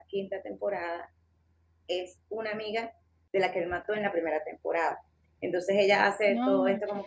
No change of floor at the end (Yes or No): Yes